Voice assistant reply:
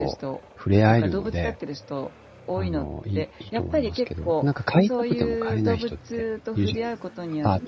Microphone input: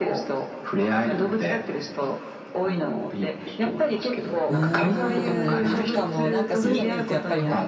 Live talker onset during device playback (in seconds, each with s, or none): 4.5 s